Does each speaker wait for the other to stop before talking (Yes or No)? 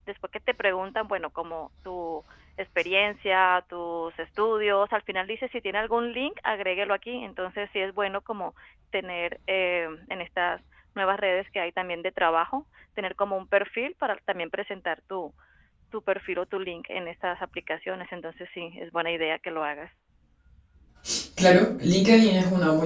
Yes